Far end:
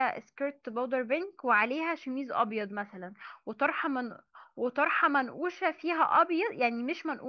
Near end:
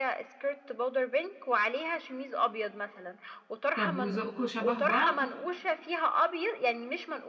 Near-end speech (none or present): present